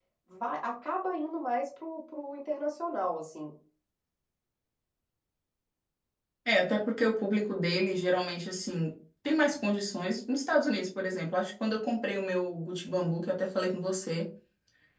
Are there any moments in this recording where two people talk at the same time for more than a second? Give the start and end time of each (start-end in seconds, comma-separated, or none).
none